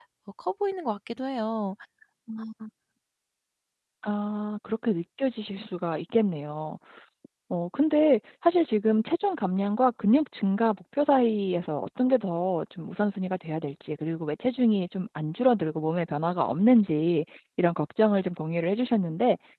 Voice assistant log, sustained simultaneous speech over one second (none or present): none